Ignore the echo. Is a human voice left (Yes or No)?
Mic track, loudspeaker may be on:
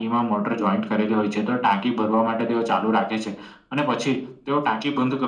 No